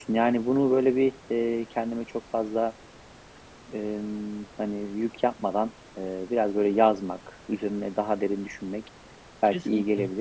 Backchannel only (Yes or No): Yes